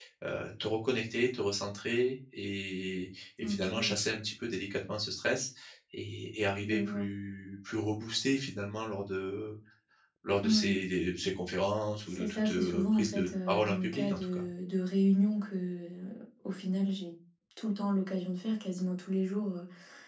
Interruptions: present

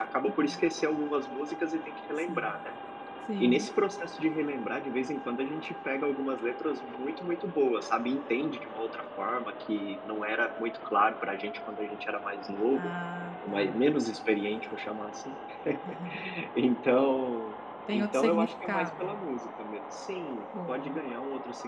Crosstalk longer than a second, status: present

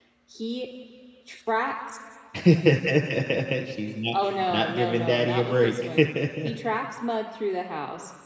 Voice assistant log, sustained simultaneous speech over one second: present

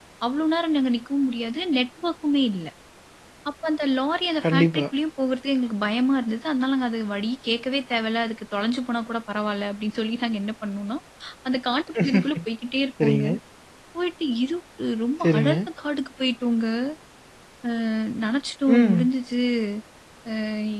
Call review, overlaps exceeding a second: none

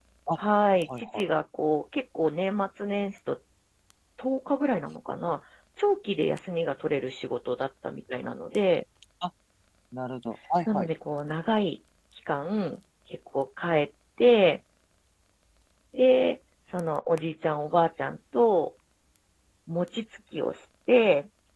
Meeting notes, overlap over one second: none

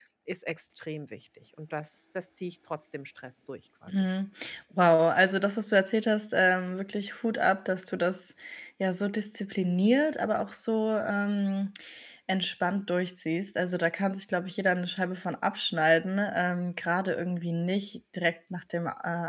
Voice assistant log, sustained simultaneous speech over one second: none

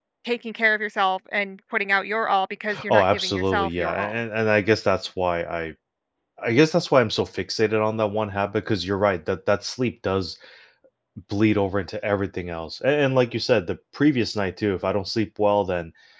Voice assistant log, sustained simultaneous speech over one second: present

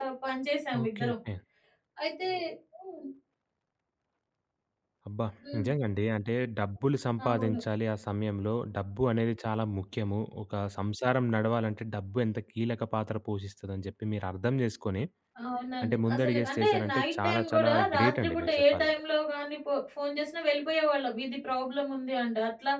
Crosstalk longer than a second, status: present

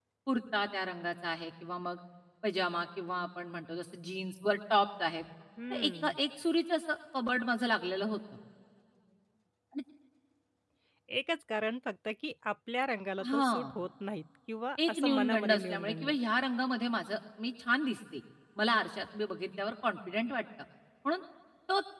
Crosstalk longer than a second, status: present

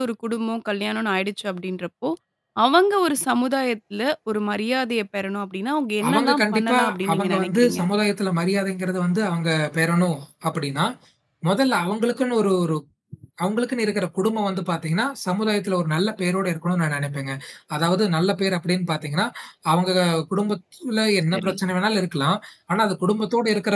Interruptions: present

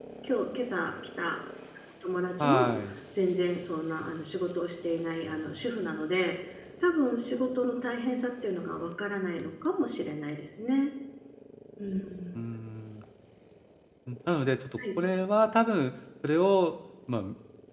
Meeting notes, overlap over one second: none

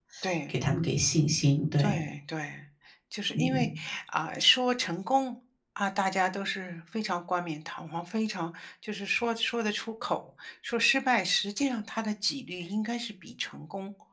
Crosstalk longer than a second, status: none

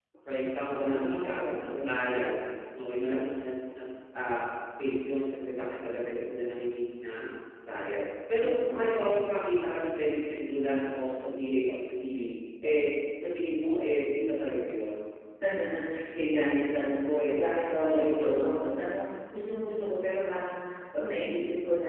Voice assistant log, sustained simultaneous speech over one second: present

